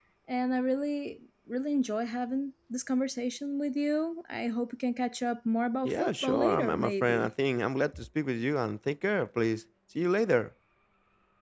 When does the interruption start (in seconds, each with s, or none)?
5.8 s